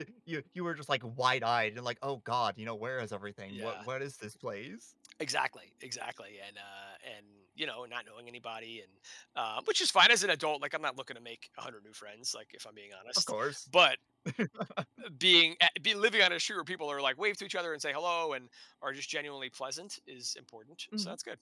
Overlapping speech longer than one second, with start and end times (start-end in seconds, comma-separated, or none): none